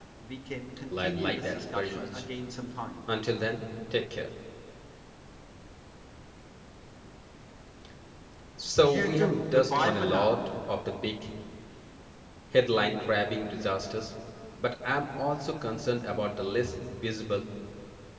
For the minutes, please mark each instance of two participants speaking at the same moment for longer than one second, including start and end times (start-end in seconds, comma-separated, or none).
0.9-2.2, 8.8-10.4